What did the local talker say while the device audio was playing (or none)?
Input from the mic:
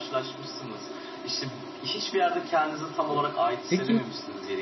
Peki